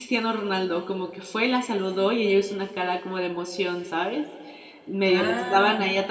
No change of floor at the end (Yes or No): Yes